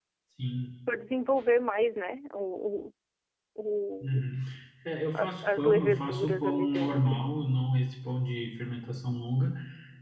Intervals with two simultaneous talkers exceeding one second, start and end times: 5.1-7.2

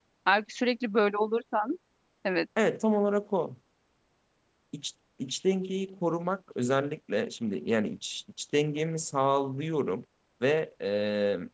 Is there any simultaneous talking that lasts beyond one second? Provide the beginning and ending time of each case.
none

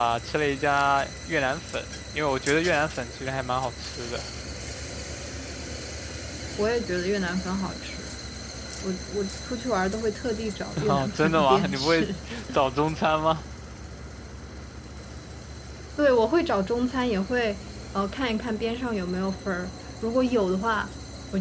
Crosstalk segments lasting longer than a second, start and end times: 10.9-12.1

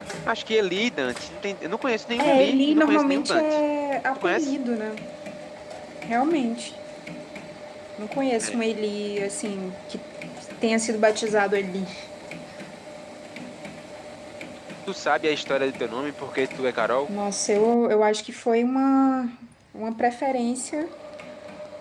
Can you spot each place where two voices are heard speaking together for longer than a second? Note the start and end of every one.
2.2-3.6

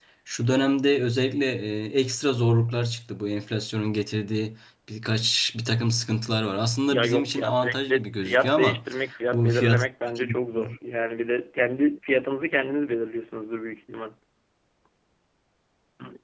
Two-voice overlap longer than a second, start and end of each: 6.9-8.8

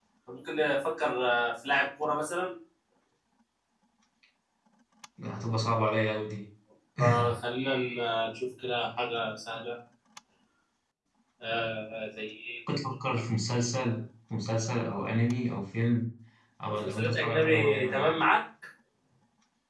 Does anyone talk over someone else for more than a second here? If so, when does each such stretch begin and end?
16.8-18.2

